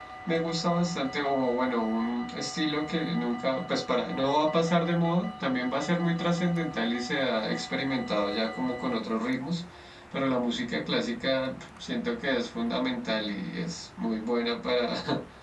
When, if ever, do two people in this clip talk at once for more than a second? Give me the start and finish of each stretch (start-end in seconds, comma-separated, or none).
none